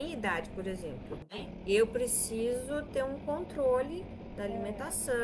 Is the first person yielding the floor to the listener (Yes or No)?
No